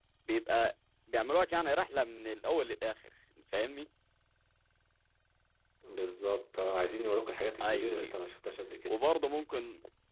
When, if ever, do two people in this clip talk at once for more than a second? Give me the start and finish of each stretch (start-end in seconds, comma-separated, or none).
none